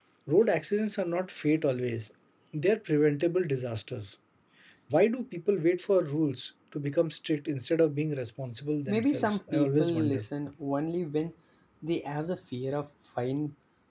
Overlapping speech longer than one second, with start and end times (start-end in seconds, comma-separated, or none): 8.9-10.3